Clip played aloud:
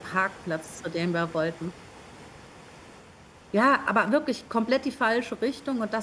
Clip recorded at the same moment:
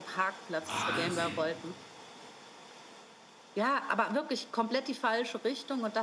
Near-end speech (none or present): present